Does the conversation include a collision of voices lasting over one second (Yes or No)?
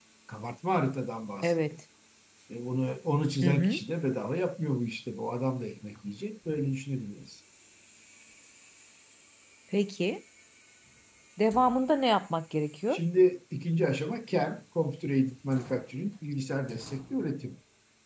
No